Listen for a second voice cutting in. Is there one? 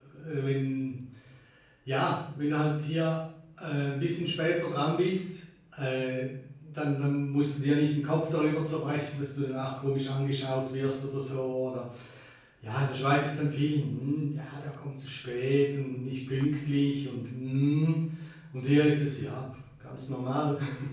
No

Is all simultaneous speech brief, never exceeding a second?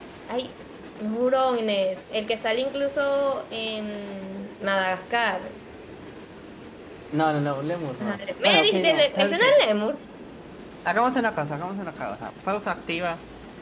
No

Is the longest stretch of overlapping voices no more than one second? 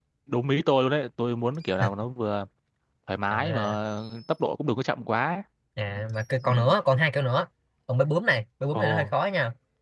Yes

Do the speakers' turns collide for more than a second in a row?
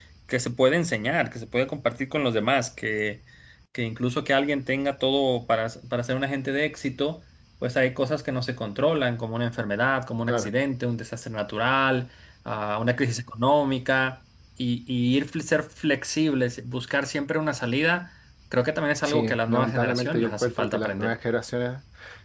Yes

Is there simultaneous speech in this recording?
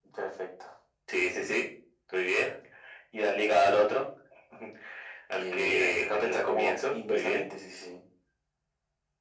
Yes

